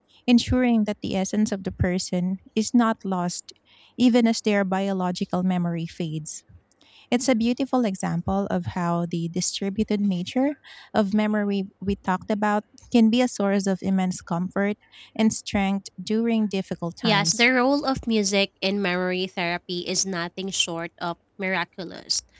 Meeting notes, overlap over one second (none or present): none